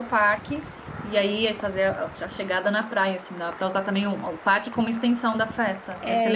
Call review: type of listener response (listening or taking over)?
taking over